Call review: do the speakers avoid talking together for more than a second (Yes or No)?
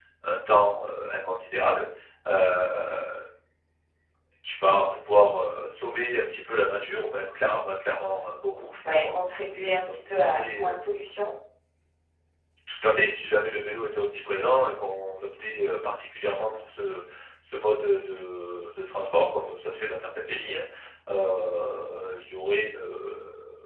No